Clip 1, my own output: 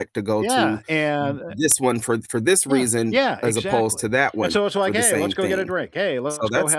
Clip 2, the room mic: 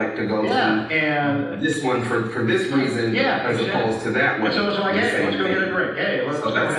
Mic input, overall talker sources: echo only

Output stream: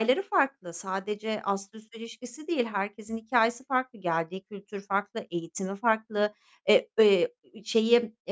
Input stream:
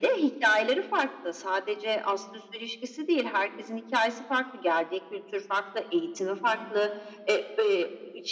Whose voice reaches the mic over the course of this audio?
echo only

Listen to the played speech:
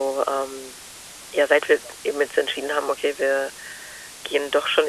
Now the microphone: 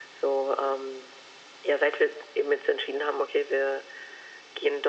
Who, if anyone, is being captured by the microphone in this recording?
echo only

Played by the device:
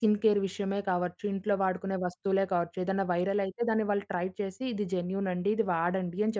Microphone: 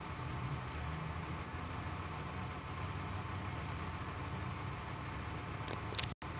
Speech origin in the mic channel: neither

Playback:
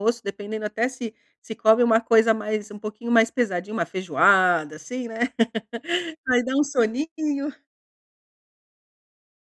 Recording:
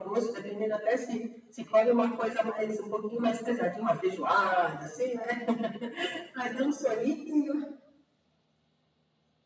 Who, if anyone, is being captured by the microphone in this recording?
echo only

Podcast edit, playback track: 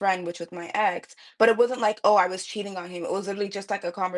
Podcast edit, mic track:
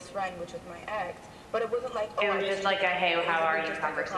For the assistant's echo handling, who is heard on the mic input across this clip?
both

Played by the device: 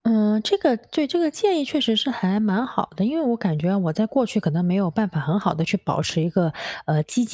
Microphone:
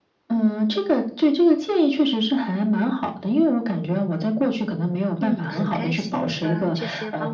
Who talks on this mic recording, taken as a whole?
both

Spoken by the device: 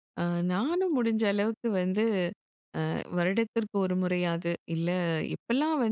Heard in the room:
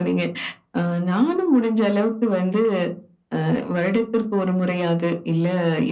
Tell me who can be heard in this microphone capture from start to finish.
echo only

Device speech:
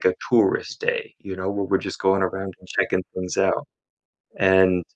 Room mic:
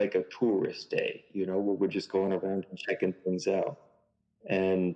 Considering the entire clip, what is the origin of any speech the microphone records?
echo only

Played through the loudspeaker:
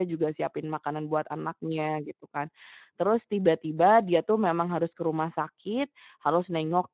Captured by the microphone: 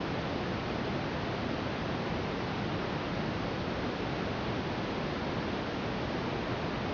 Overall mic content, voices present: neither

